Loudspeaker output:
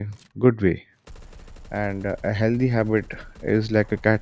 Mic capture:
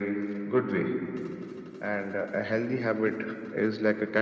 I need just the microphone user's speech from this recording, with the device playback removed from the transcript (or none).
none